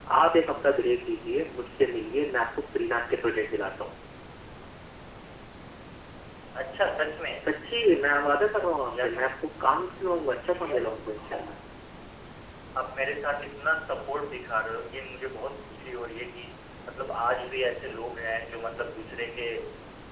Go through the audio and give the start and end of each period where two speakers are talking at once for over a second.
none

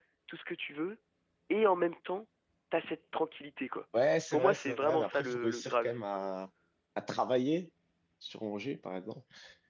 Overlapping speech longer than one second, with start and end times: 4.3-6.0

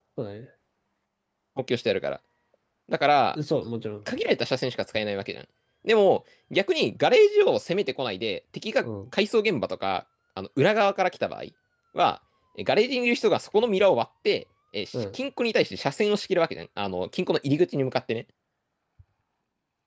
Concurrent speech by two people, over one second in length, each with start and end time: none

